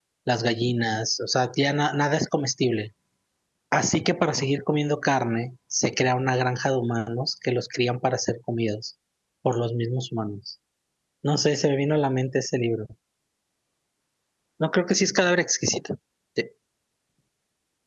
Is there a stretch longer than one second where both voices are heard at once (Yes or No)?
No